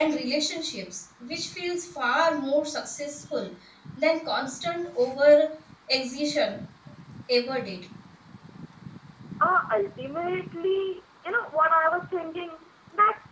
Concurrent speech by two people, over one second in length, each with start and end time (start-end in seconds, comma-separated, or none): none